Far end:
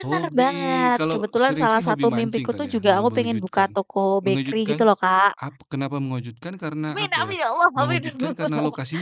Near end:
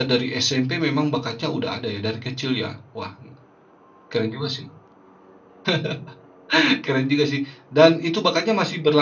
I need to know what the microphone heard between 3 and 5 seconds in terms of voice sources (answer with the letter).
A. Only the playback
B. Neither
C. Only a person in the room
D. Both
C